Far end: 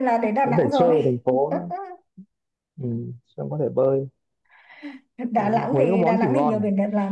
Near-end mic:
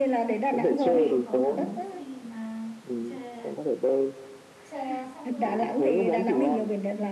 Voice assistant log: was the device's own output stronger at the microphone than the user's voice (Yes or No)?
Yes